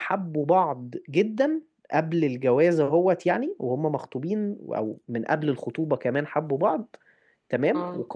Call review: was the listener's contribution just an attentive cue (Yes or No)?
Yes